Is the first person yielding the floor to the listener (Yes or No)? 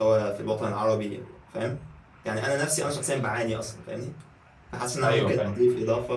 No